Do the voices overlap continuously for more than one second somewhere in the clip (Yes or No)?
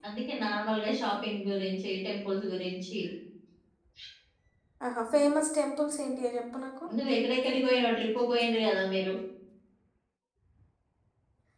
No